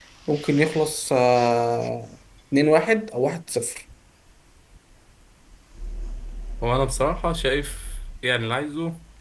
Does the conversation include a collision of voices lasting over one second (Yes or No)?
No